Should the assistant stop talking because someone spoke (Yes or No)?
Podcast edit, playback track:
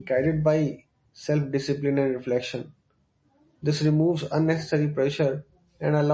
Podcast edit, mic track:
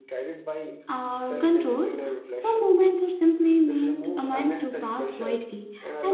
Yes